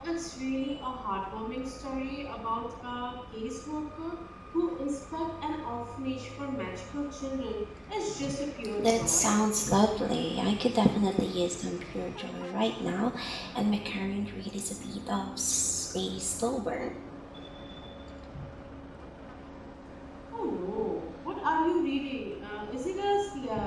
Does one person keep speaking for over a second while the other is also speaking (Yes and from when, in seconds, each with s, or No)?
No